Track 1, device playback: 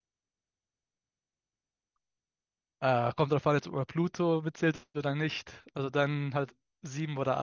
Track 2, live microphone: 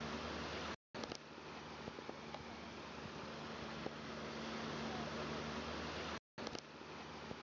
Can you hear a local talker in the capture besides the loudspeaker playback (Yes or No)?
No